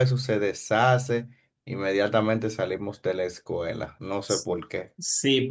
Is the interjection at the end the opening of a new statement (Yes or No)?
Yes